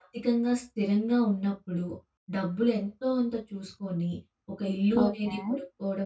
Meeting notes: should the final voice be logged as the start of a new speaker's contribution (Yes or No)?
No